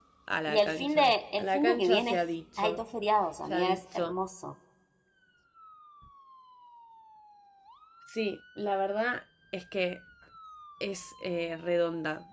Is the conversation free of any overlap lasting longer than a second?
No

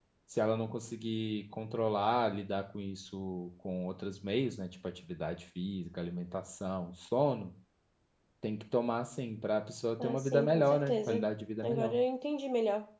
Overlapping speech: Yes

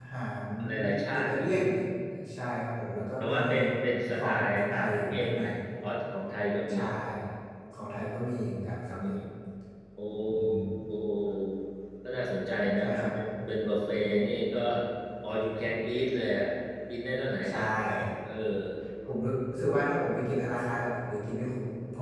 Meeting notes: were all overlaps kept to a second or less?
No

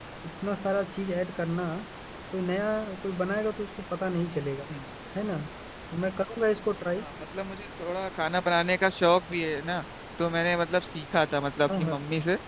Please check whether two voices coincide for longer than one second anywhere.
No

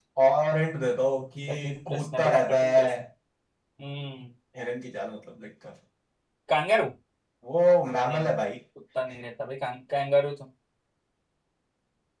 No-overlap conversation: No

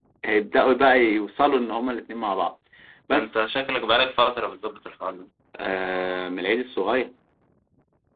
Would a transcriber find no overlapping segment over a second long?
Yes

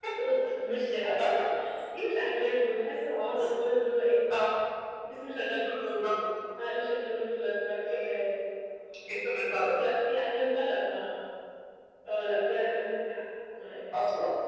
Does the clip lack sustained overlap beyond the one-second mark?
Yes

